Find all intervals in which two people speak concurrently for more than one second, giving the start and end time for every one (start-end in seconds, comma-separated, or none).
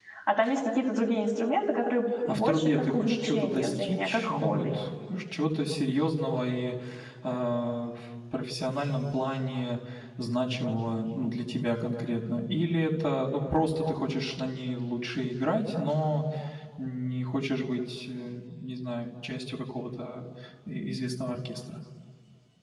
2.3-4.7